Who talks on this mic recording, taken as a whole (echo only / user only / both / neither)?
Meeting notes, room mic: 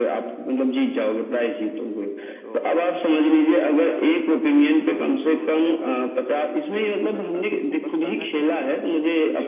both